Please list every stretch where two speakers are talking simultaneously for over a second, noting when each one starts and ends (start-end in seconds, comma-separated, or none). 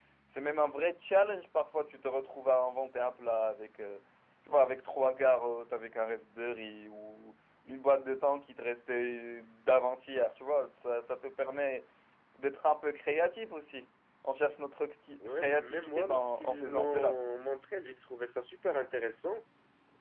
15.4-17.2